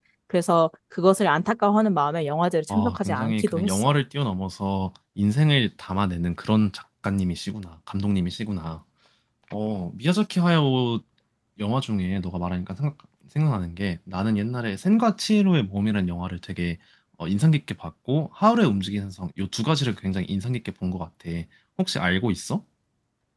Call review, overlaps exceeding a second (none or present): present